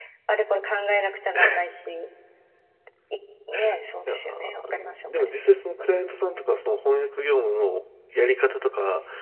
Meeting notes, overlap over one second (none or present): present